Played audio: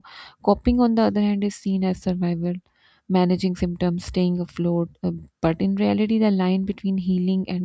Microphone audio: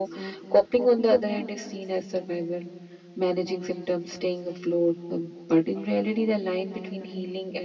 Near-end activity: none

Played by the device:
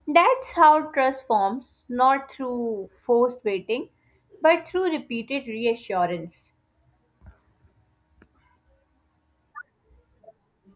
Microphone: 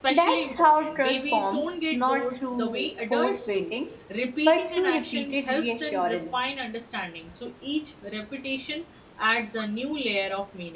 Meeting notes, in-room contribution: present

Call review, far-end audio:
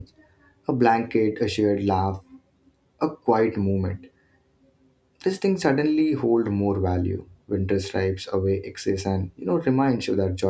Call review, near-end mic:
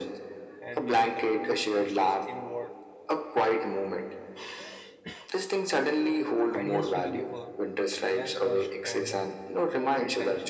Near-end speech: present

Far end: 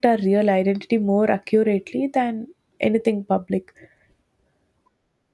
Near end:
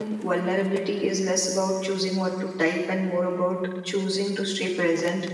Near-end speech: present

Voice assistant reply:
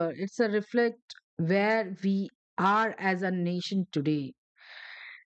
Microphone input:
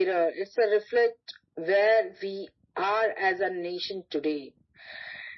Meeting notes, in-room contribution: none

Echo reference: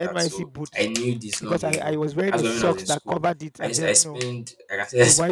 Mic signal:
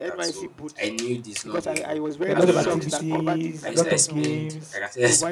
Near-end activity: present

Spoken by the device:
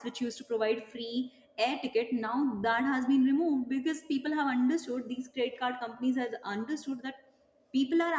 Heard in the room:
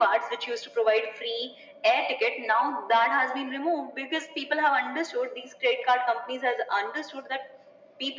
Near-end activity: none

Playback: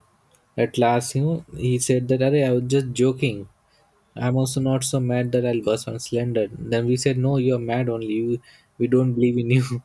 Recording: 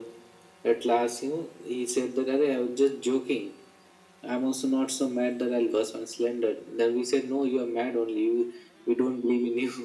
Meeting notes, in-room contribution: none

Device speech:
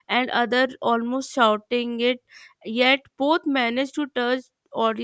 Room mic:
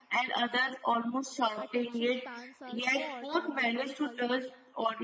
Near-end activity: present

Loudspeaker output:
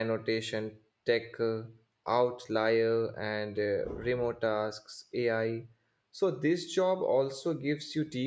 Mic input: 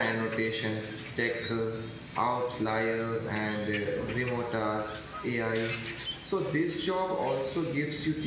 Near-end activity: none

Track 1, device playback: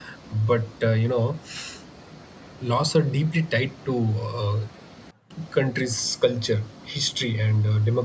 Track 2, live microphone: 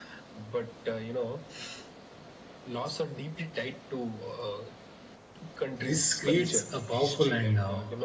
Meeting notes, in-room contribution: present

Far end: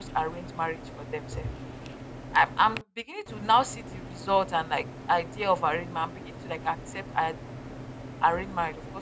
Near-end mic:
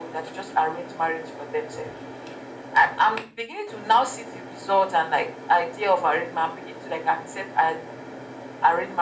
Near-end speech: none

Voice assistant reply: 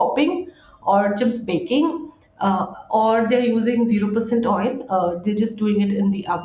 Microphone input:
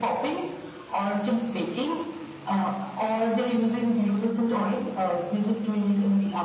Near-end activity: none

